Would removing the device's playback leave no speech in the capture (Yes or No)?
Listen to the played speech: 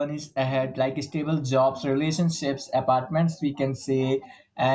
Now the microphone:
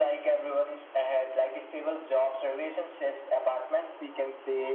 Yes